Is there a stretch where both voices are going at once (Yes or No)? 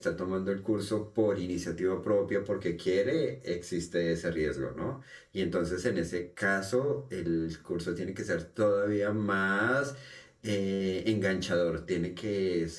No